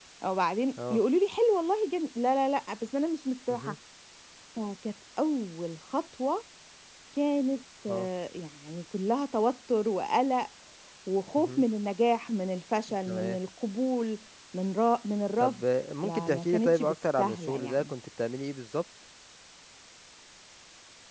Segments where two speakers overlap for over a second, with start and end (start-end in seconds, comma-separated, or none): 16.0-17.9